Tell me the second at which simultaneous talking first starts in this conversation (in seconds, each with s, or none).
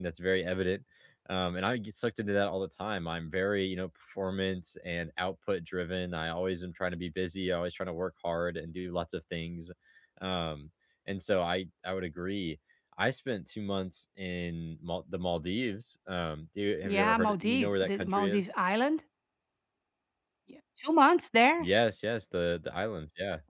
16.8 s